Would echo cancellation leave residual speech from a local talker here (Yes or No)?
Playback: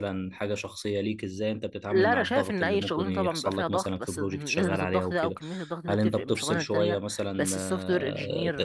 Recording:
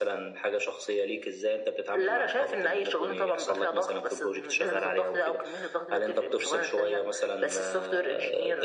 No